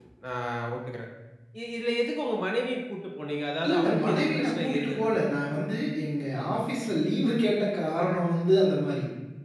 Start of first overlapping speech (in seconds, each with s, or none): 3.6 s